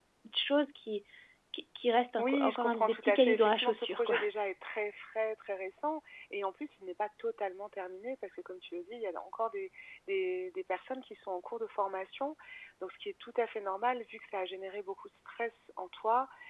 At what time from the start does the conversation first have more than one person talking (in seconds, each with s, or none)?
2.2 s